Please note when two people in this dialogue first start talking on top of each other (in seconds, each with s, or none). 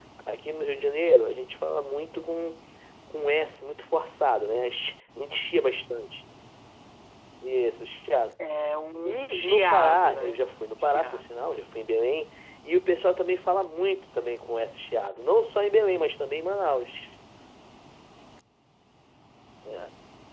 9.1 s